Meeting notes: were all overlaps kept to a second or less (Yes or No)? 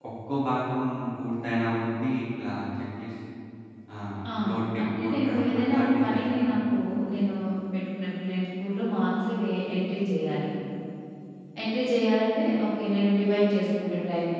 No